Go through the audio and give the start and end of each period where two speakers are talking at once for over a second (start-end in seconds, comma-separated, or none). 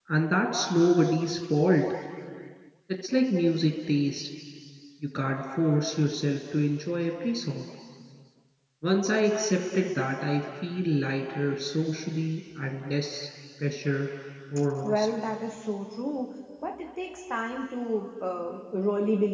none